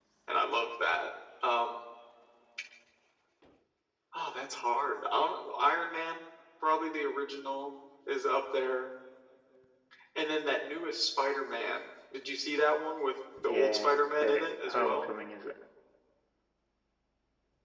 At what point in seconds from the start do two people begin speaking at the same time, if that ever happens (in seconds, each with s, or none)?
13.4 s